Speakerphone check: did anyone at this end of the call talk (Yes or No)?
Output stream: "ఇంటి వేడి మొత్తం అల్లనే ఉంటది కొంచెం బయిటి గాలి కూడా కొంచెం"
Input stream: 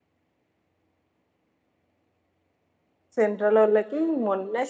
Yes